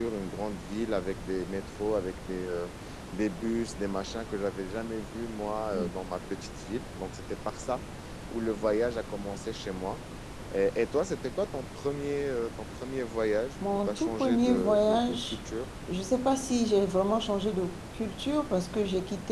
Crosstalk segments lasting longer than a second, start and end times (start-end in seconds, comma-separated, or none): 13.9-15.4